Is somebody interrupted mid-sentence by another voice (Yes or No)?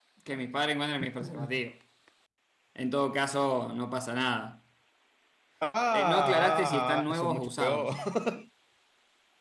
Yes